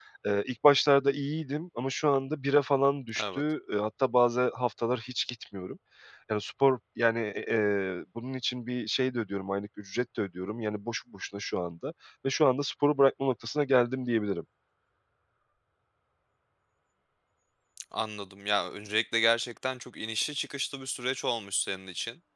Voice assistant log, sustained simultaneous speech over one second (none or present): none